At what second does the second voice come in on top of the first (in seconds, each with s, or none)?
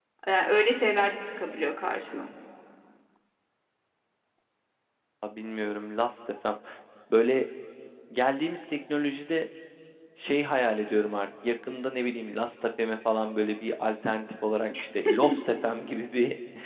none